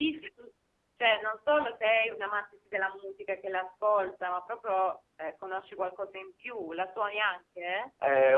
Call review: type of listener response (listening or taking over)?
taking over